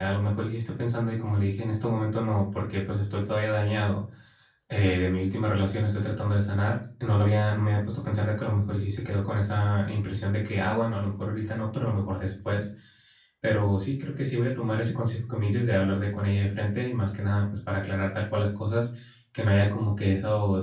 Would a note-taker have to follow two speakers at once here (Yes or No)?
No